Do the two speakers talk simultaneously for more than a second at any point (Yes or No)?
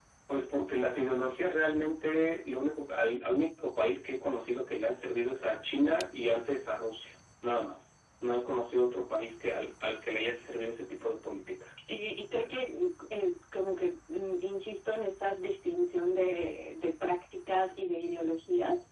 No